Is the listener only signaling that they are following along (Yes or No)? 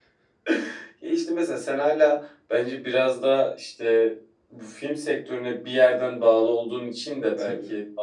Yes